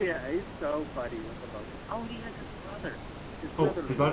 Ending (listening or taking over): taking over